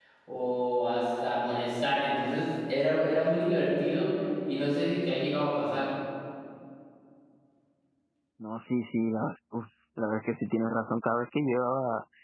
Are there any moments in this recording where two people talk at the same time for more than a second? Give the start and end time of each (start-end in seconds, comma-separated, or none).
none